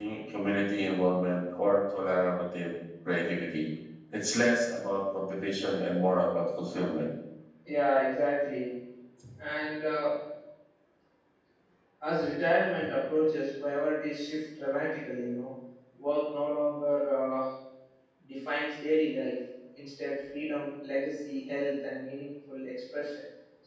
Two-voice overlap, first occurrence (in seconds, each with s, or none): none